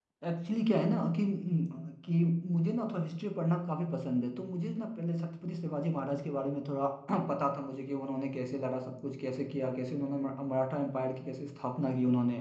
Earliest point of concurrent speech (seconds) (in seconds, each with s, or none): none